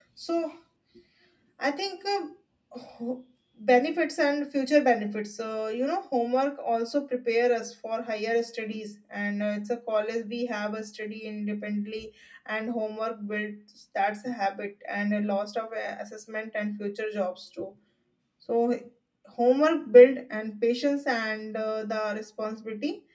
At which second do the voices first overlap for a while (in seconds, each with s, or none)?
none